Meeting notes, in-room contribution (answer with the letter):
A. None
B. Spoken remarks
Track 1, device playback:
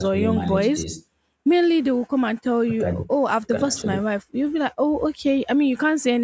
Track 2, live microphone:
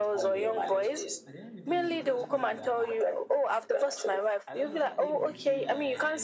B